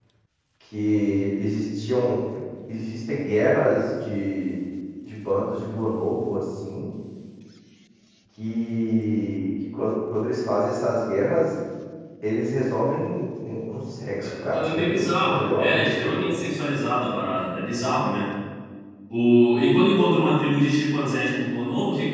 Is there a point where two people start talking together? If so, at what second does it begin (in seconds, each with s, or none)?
14.2 s